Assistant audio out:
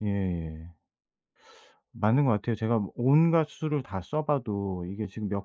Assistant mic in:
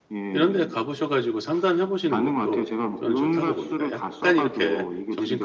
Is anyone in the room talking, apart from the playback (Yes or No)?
Yes